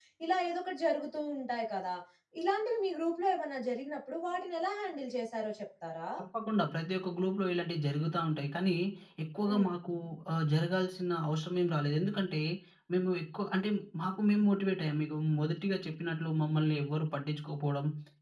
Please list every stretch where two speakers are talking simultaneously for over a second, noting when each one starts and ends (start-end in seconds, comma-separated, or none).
none